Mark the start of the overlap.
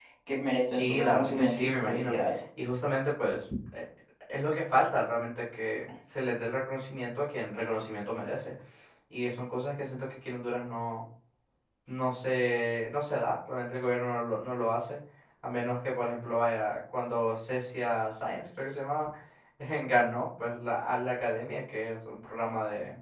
1 s

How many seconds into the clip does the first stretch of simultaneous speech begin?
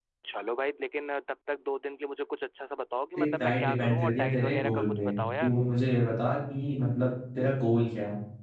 3 s

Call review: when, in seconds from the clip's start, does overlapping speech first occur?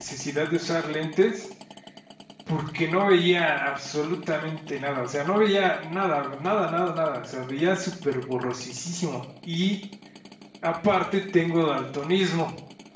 none

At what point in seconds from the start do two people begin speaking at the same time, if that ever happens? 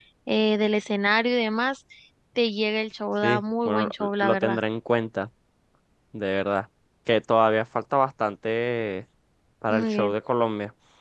3 s

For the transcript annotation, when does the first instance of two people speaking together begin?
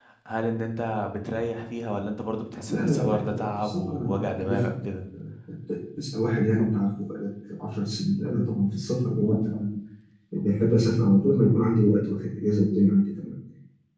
3 s

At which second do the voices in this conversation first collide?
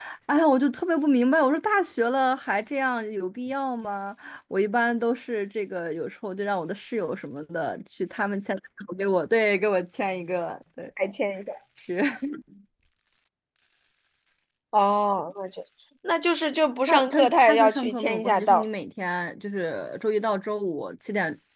17 s

